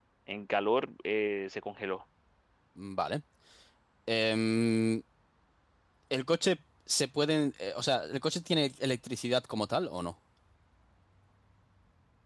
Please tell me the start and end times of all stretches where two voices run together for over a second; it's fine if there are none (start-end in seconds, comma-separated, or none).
none